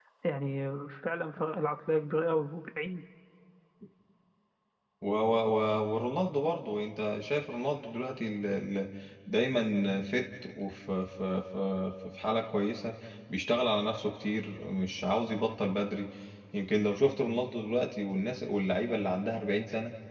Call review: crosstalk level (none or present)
none